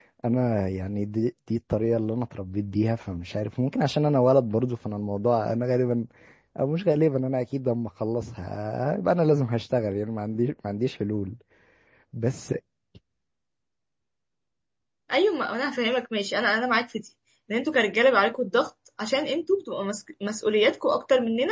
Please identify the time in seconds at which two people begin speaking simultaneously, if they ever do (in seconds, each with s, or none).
none